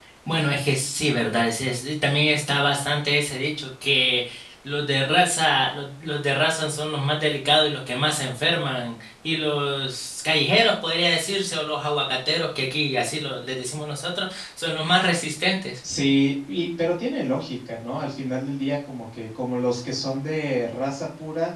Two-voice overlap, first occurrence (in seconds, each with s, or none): none